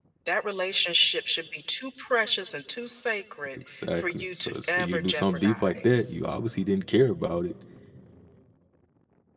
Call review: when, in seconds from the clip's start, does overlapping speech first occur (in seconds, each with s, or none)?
3.6 s